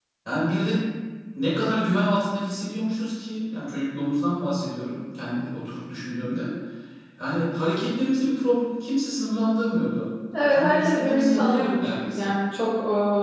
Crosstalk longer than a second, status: present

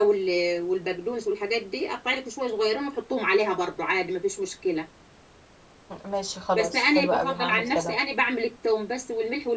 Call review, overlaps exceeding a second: present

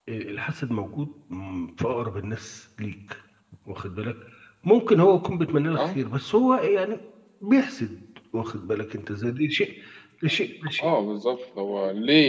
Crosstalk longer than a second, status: none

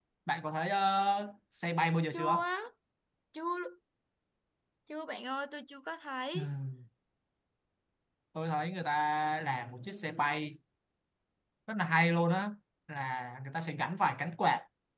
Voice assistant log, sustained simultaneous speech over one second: none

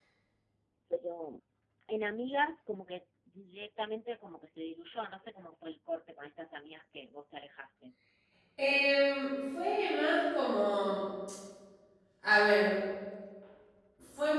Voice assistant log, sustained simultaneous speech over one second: none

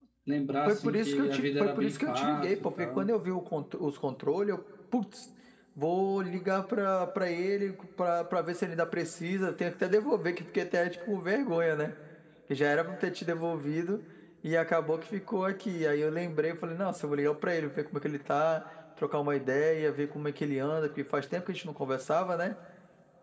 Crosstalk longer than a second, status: present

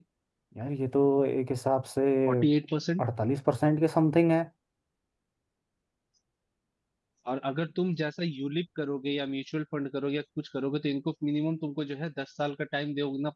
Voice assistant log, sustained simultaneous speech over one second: none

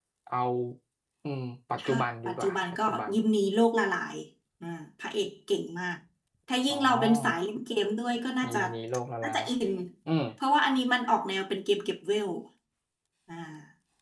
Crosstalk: present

